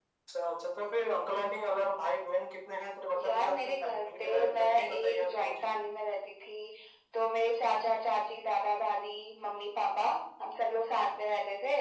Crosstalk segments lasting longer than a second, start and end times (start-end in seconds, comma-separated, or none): 3.2-5.6